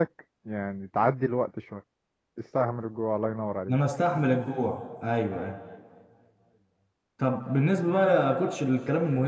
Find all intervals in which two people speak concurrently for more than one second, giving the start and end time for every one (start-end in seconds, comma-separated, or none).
none